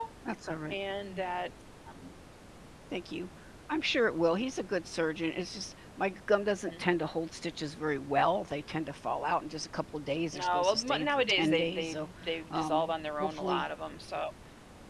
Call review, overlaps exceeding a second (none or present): present